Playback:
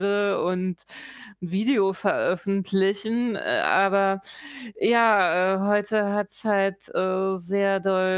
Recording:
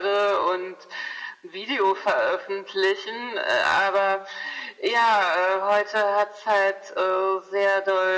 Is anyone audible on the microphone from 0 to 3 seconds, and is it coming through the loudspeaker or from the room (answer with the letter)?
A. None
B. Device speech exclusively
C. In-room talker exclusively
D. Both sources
B